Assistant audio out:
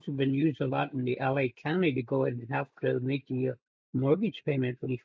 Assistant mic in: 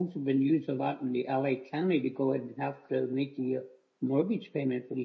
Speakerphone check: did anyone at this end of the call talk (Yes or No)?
No